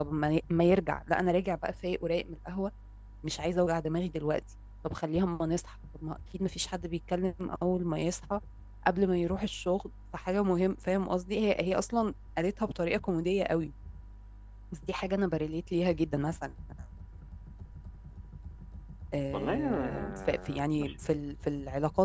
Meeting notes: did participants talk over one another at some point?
Yes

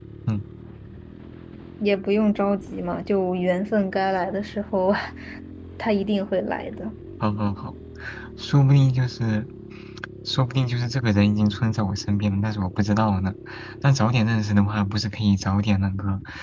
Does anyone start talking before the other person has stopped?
No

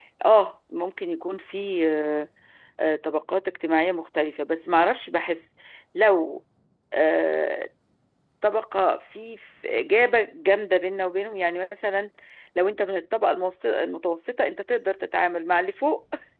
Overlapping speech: No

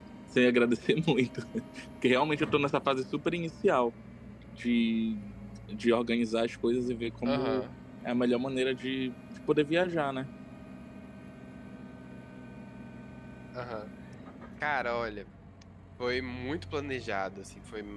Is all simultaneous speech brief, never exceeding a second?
Yes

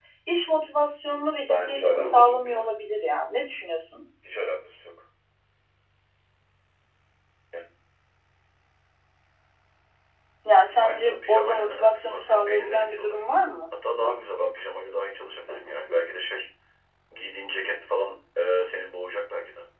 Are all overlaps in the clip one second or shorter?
No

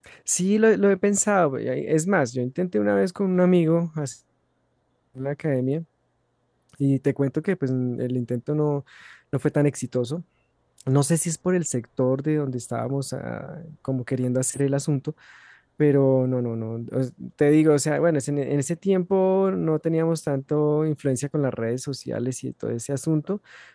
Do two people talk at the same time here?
No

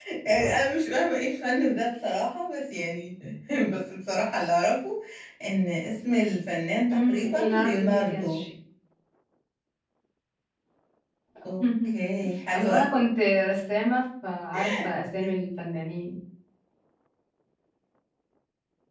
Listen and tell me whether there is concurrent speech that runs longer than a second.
Yes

